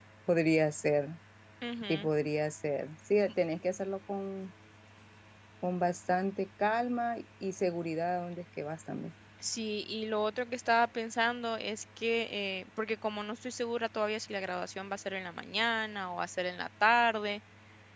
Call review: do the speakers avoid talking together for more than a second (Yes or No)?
Yes